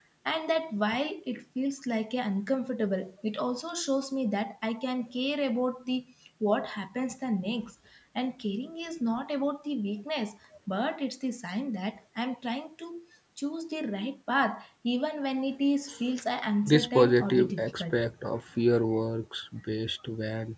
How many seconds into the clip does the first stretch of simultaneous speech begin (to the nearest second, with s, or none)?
17 s